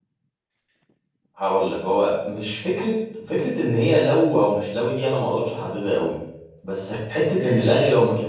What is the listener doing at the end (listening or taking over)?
listening